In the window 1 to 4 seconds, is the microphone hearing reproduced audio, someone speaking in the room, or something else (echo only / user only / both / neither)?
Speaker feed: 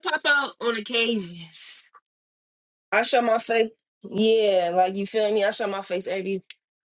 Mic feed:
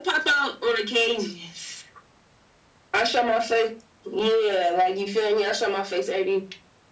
echo only